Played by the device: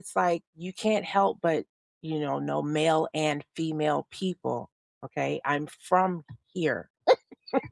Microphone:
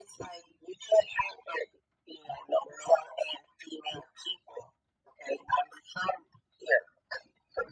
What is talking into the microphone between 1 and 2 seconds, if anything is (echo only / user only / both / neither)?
echo only